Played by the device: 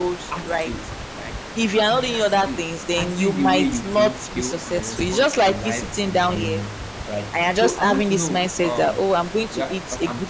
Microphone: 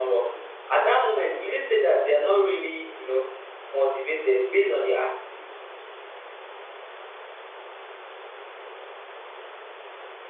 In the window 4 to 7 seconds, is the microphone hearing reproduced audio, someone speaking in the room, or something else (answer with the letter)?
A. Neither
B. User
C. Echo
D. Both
B